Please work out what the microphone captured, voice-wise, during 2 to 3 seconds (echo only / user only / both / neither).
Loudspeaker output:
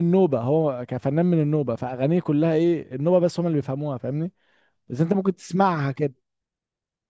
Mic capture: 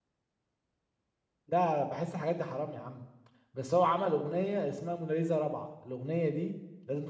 user only